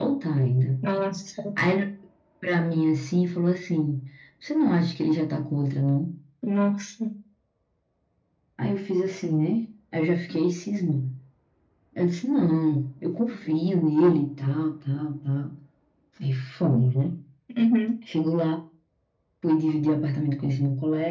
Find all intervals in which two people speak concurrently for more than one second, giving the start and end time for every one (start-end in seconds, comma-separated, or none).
none